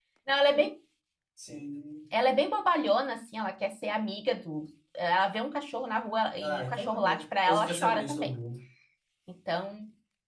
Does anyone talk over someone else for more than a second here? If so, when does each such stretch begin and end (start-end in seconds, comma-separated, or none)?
6.4-8.3